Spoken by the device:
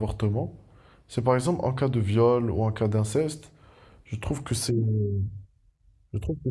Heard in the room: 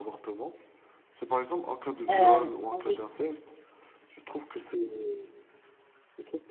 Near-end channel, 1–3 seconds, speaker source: both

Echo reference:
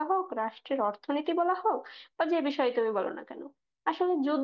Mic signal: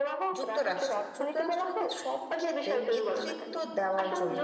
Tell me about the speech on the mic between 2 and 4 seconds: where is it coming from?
both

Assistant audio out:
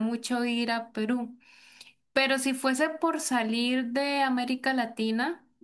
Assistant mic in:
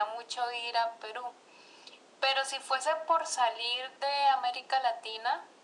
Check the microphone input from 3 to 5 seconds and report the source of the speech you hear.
echo only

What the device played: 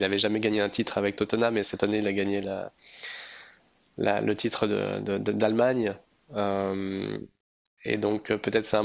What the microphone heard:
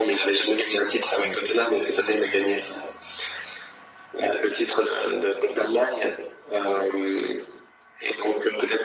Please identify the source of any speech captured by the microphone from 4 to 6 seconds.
echo only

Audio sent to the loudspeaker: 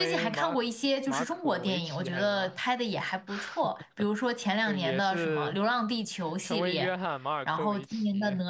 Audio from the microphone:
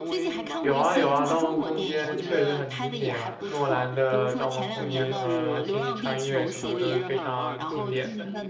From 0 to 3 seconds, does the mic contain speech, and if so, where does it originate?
both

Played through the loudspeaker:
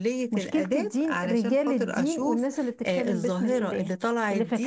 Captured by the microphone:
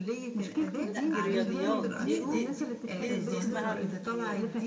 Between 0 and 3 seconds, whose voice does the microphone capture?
both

